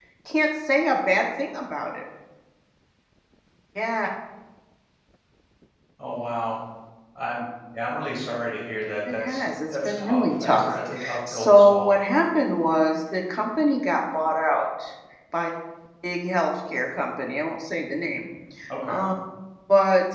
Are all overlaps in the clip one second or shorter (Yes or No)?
No